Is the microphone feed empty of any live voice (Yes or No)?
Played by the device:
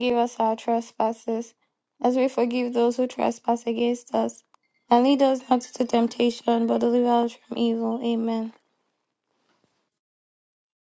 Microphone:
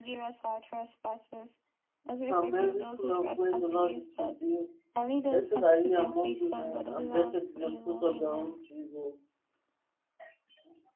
No